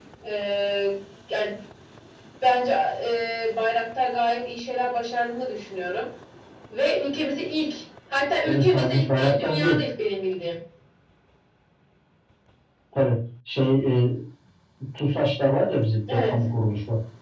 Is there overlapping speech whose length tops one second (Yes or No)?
Yes